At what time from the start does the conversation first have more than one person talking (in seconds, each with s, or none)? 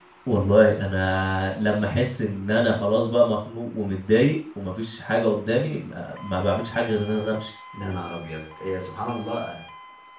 none